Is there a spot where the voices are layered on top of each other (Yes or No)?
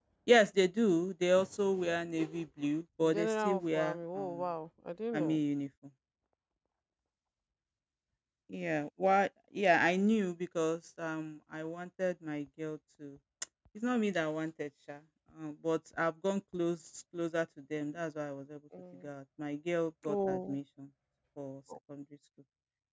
Yes